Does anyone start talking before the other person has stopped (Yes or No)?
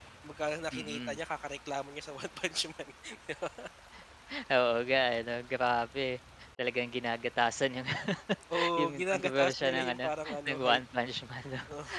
Yes